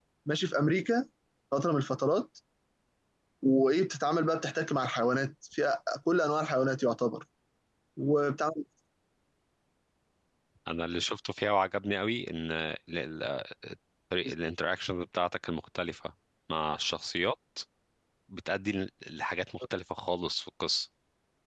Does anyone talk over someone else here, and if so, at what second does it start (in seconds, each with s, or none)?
none